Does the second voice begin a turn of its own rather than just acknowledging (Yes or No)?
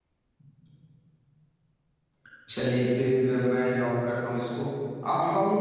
No